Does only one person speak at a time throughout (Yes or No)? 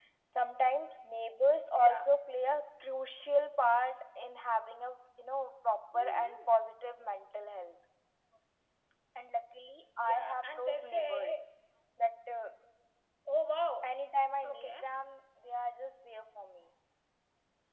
No